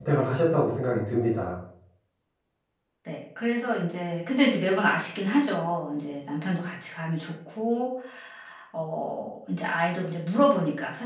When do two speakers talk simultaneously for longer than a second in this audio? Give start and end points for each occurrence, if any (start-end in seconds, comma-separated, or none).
none